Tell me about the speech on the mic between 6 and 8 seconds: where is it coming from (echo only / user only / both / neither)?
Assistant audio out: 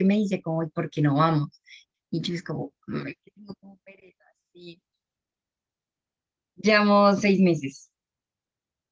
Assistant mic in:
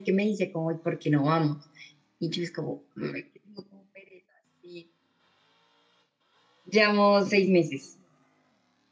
echo only